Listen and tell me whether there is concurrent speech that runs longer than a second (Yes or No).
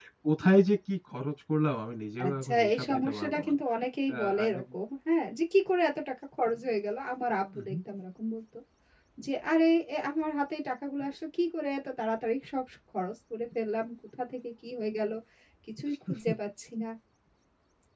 Yes